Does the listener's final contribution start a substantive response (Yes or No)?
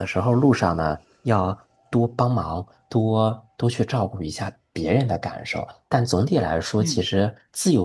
No